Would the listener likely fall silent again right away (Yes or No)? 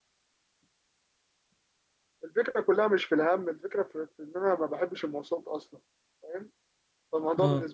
Yes